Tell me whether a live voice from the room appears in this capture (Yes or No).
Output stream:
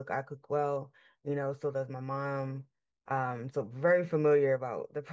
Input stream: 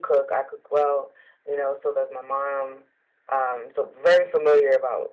No